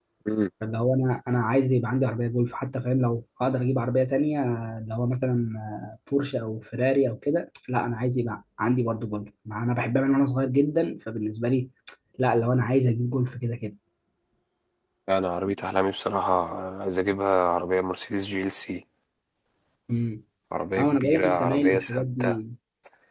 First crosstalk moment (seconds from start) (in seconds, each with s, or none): 20.8 s